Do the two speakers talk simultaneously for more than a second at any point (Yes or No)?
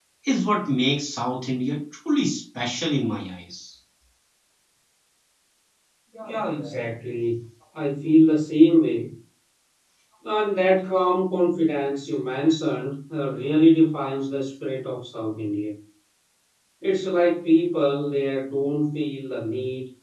No